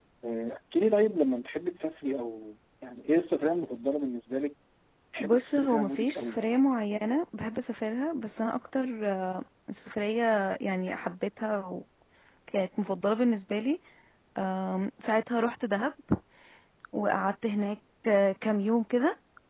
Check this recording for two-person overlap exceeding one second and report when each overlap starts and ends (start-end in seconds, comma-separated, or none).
5.2-6.5